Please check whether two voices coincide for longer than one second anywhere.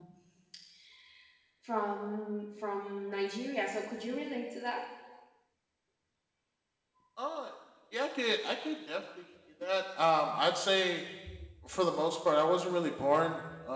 No

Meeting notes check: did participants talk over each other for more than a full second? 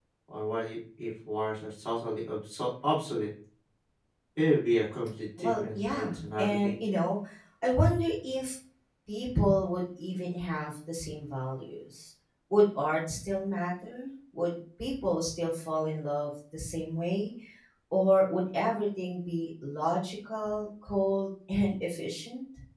Yes, from 5.4 s

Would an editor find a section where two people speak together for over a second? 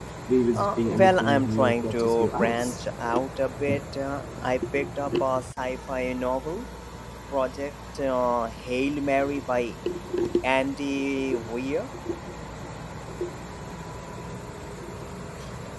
Yes, from 0.6 s

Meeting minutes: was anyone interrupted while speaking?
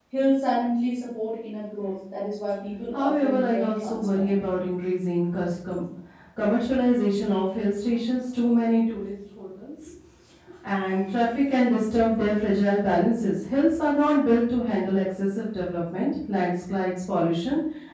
Yes, from 2.9 s

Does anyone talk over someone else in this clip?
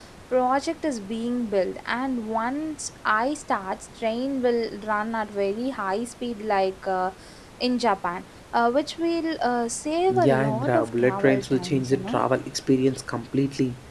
Yes, from 10.1 s

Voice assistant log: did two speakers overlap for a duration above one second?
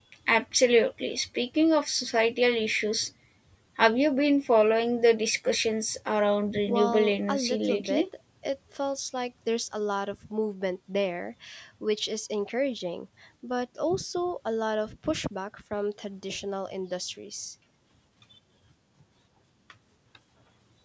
Yes, from 6.6 s

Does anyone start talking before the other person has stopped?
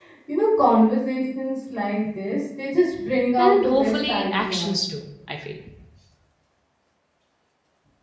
Yes, from 3.4 s

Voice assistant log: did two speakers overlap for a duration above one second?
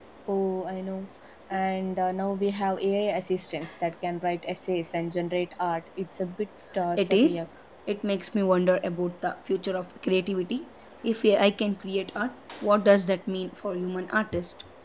No

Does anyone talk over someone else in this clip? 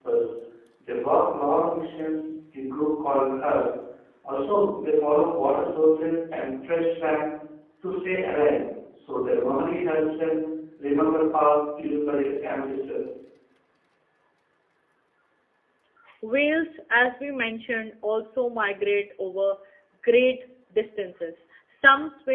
No

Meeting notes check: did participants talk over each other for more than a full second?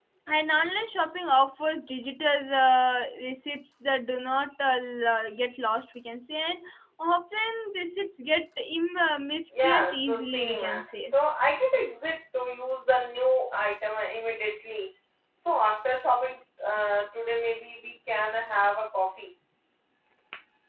Yes, from 9.5 s

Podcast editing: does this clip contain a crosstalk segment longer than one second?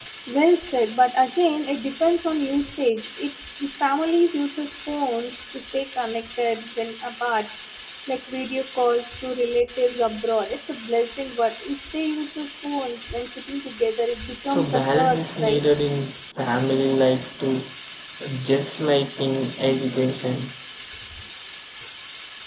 Yes, from 14.4 s

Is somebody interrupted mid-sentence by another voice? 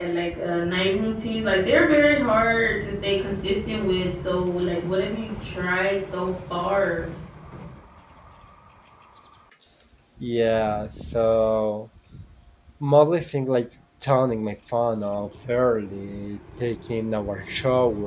No

